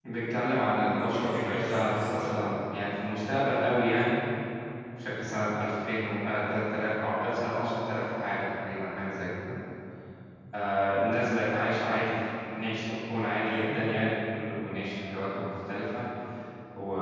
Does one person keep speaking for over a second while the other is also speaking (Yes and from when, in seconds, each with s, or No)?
Yes, from 1.0 s